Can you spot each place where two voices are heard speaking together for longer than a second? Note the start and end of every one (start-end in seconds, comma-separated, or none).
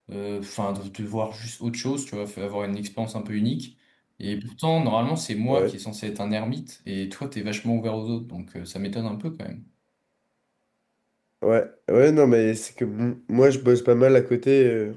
none